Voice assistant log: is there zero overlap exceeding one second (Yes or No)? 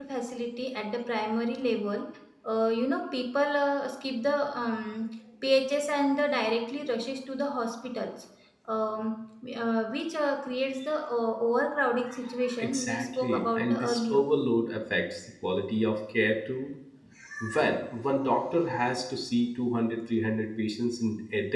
No